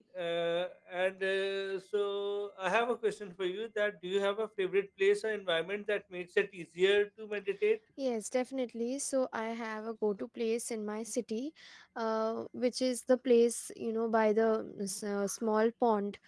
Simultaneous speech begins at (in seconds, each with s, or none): none